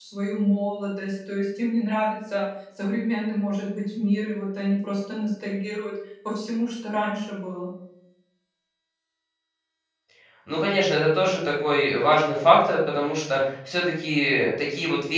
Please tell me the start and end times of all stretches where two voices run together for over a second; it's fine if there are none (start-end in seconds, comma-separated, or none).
none